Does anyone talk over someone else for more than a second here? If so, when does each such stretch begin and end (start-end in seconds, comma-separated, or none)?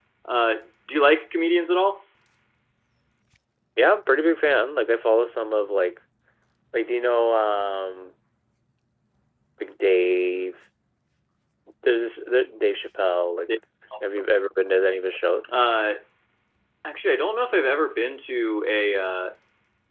none